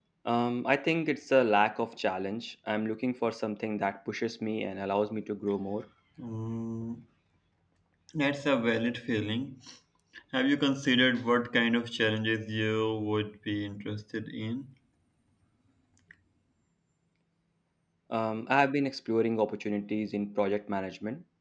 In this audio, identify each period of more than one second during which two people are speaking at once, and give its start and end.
none

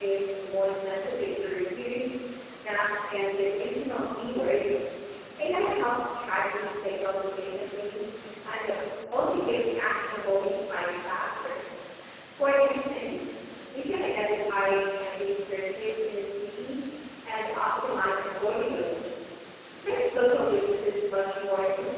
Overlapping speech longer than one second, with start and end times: none

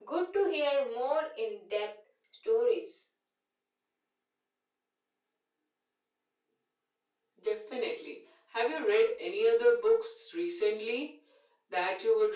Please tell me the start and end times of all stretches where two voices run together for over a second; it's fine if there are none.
none

